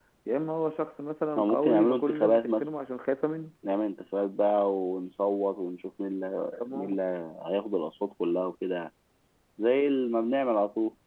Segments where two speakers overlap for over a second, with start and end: 1.4-2.7

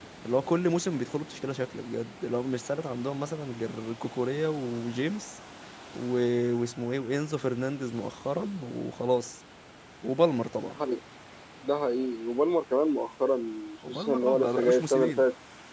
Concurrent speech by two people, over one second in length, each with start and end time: 13.9-15.2

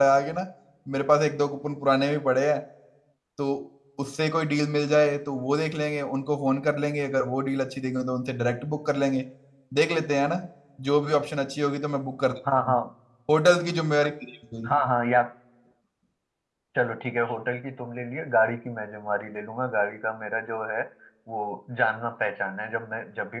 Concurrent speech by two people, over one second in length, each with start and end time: none

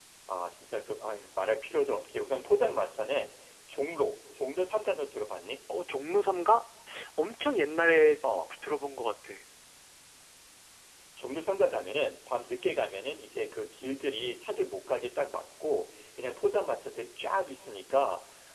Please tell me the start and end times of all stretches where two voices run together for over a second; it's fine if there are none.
none

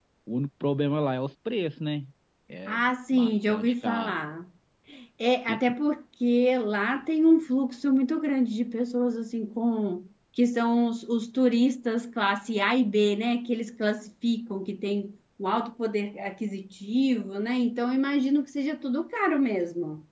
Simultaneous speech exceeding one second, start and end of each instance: 2.7-4.1

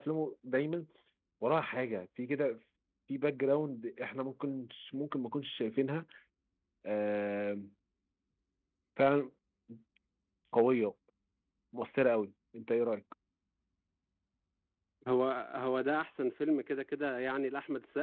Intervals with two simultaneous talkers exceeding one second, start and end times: none

